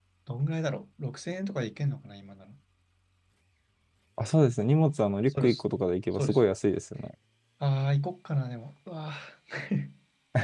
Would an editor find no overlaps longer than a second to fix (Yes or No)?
Yes